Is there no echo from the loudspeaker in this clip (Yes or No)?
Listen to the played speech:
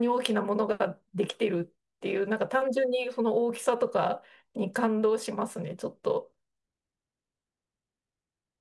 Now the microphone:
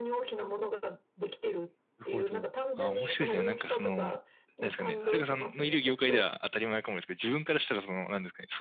No